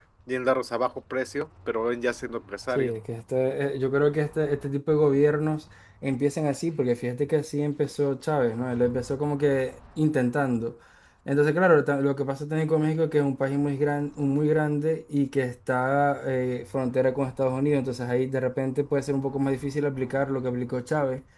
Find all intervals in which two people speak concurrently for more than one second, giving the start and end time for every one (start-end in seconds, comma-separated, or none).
none